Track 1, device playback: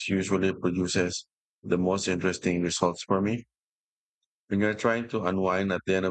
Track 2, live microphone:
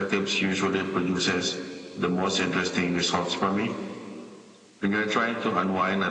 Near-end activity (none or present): none